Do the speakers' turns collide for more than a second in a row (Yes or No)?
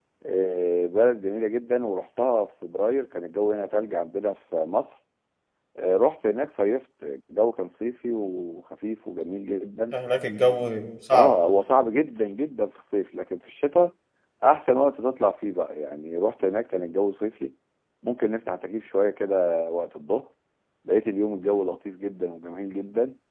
No